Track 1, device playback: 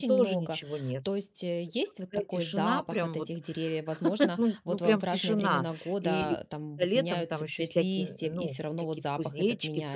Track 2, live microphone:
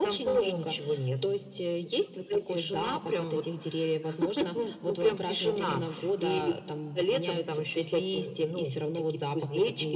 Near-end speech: none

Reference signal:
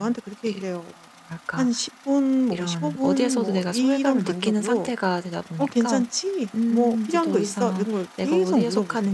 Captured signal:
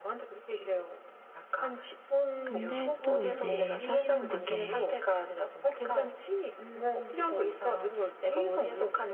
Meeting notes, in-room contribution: present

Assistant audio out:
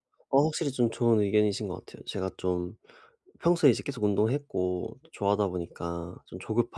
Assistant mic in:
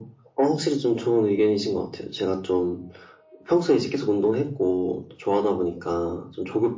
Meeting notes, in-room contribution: none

